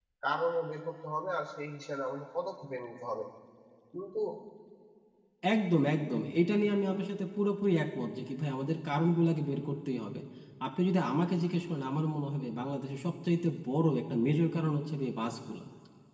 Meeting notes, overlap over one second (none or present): none